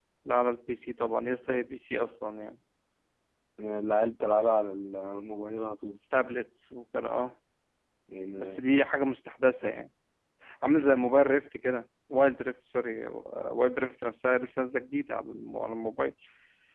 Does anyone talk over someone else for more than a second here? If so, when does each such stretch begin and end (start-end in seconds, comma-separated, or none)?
none